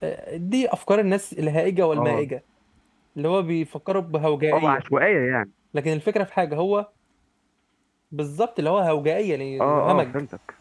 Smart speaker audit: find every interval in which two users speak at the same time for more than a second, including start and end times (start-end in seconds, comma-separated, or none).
none